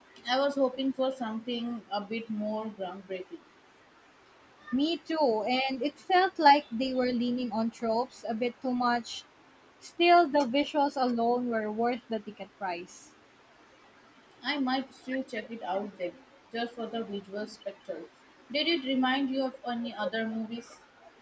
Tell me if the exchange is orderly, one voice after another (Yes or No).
Yes